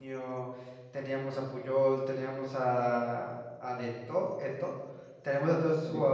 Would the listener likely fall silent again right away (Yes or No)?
Yes